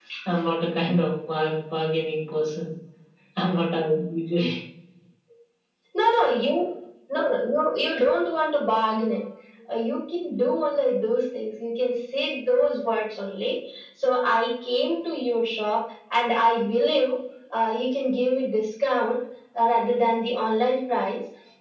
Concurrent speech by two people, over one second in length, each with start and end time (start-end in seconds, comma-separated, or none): none